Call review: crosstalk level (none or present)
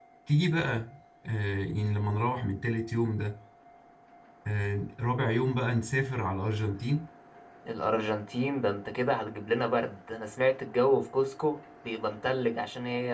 none